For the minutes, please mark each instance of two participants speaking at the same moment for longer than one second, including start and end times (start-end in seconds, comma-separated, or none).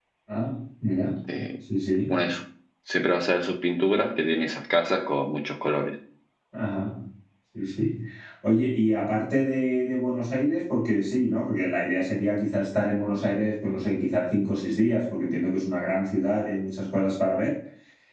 none